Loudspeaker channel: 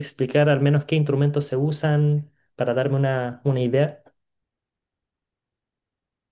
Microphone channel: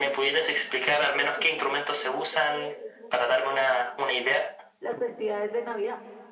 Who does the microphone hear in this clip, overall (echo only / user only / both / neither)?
both